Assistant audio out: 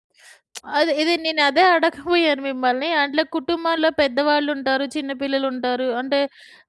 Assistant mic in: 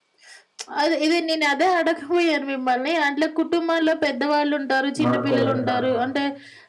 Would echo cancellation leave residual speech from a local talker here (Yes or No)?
Yes